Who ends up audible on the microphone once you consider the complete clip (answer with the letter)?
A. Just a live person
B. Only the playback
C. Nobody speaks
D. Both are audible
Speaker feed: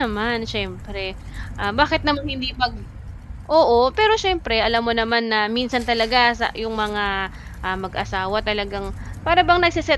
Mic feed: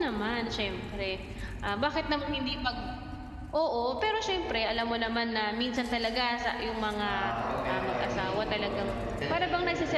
D